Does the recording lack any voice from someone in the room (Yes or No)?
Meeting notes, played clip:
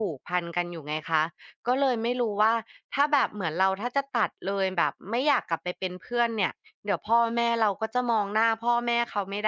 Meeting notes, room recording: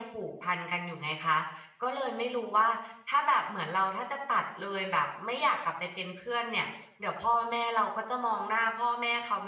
Yes